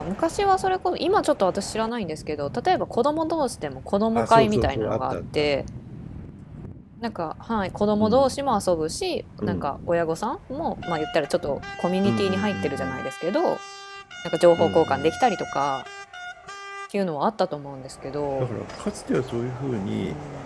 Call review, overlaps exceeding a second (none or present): present